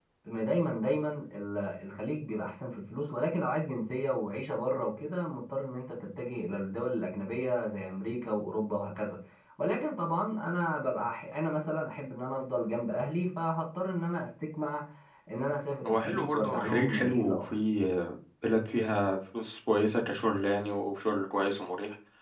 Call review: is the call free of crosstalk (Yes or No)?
No